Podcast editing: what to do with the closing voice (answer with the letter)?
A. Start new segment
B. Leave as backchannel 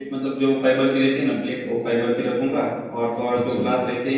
B